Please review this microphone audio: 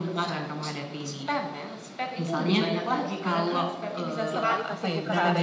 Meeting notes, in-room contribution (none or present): present